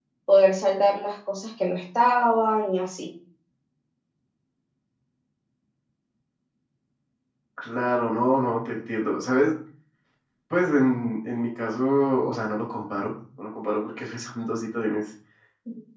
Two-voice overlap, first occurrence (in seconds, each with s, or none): none